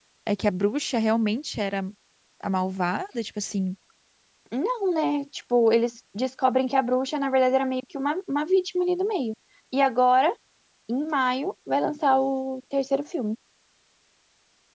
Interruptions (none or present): none